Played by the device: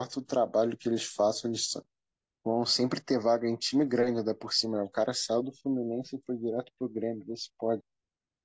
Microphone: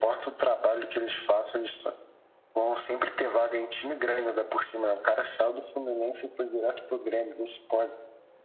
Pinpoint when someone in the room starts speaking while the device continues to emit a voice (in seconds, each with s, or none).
none